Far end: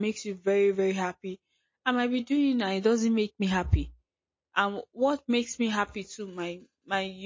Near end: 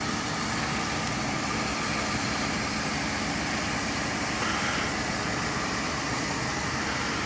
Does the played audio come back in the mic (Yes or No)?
No